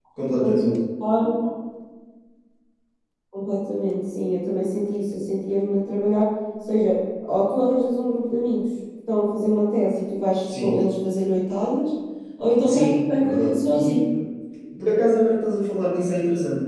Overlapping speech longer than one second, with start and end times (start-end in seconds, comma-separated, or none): 12.6-14.0